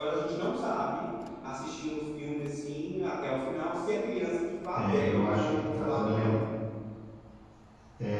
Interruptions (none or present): present